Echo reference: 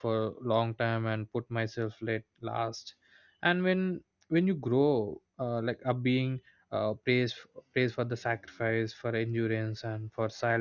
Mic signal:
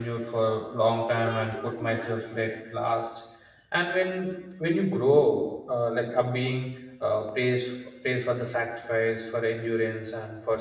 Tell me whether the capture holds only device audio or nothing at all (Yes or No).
No